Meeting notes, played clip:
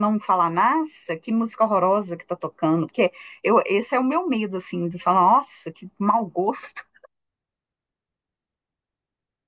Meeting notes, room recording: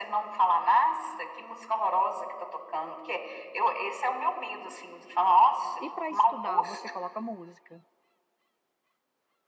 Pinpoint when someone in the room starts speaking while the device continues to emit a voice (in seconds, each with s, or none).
5.8 s